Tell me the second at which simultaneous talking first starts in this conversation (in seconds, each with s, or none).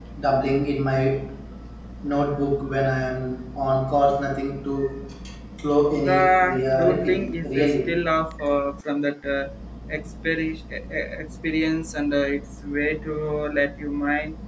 6.0 s